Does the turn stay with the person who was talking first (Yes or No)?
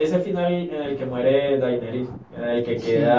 Yes